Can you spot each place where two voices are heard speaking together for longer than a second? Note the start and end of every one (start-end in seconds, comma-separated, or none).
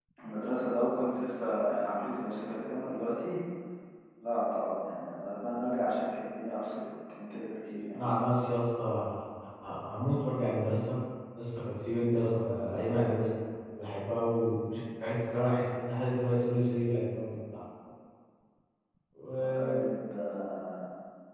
none